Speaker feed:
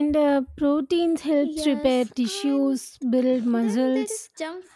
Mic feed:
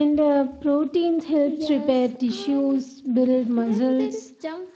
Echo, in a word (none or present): present